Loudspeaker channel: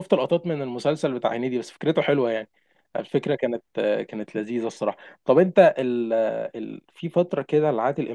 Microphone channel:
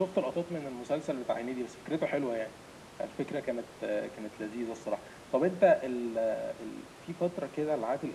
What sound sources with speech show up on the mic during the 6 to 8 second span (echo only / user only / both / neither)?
echo only